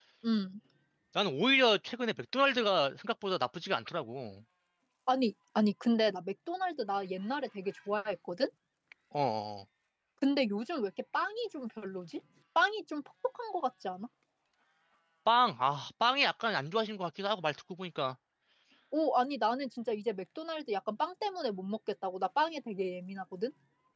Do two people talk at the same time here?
No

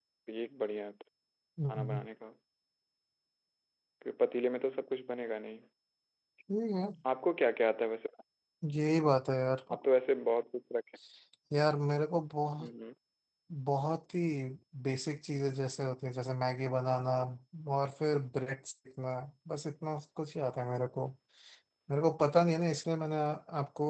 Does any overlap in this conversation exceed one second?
No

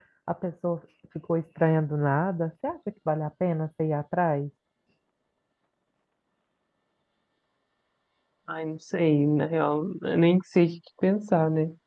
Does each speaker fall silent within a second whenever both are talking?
Yes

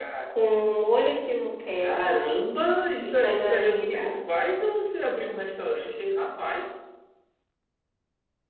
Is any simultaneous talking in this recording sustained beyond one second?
Yes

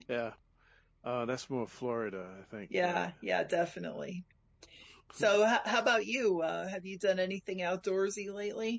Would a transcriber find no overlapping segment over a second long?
Yes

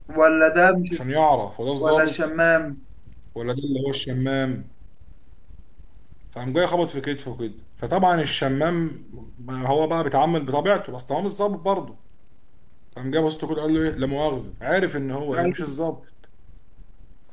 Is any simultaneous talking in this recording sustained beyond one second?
No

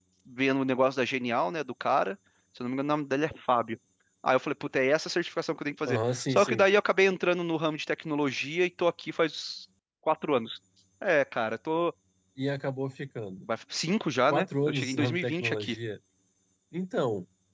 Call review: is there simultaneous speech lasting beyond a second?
Yes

